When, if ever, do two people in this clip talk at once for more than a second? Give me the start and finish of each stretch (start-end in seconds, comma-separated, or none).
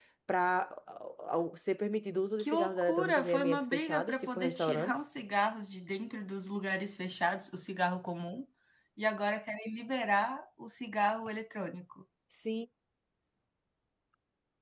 2.4-5.0